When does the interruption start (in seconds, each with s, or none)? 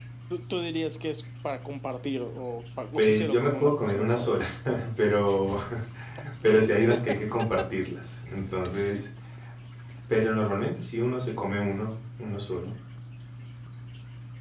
3.0 s